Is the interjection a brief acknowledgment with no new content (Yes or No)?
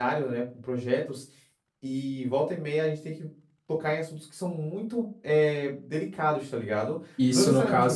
No